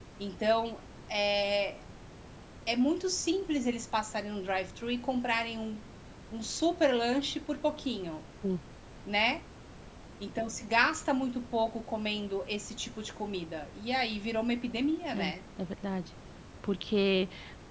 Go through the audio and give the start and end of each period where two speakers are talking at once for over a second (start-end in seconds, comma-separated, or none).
none